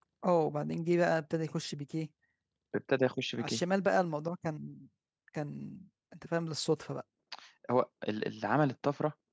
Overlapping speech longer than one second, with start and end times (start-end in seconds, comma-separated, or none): none